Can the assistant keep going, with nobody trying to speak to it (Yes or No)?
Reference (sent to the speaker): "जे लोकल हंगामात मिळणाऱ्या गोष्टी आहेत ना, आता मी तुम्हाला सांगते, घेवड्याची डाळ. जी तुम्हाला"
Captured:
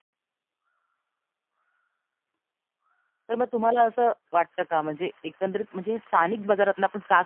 No